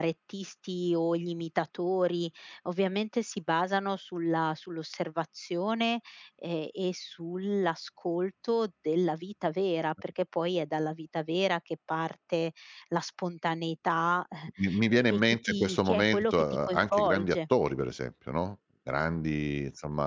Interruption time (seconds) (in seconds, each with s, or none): 14.9 s